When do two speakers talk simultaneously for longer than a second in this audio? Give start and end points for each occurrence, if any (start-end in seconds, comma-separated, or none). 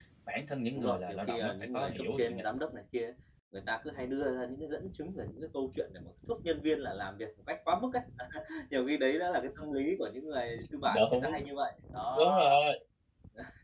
0.8-2.5